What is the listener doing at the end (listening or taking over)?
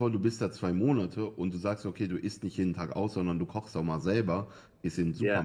listening